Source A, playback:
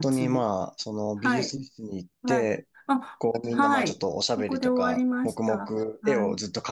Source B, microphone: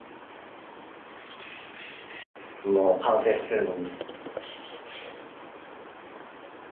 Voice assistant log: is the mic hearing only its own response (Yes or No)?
No